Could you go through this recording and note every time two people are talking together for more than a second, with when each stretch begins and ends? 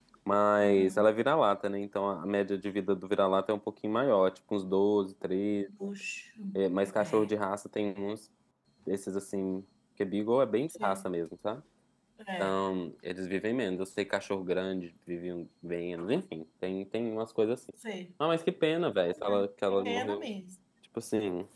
none

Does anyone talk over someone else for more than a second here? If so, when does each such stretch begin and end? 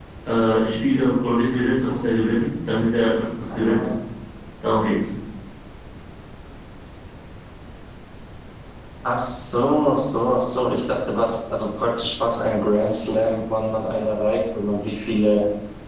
none

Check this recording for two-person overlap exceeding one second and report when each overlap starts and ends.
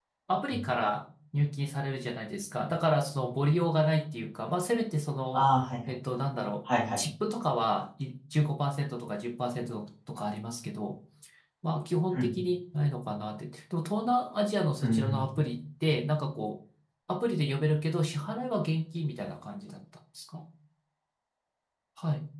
none

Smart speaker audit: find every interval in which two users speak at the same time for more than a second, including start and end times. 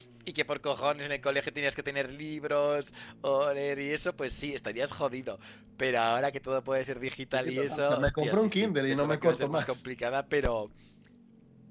7.3-9.8

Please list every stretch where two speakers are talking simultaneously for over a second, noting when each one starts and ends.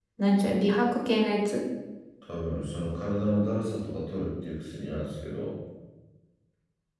none

